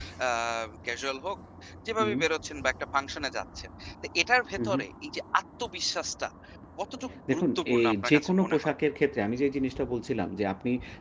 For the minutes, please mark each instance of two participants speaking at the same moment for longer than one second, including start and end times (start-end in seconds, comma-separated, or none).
7.3-8.7